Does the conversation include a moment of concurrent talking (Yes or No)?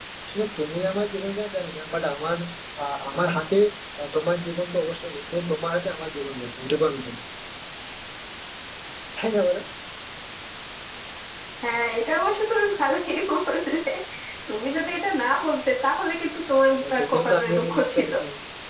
Yes